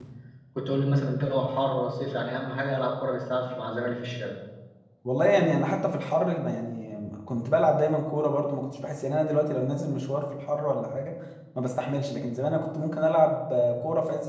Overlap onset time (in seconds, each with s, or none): none